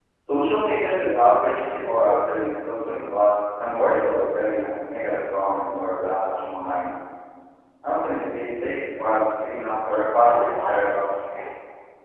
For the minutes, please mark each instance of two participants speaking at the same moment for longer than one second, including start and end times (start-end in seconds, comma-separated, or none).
9.9-11.1